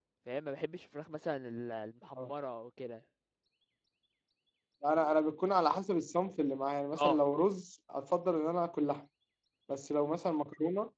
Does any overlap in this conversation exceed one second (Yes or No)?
No